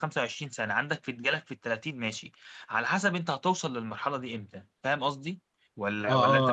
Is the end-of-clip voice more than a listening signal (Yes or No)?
Yes